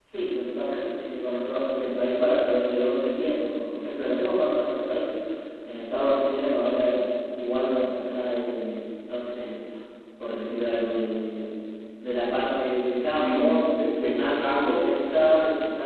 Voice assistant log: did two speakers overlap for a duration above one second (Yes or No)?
Yes